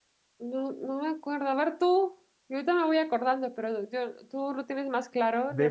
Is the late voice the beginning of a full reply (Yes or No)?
Yes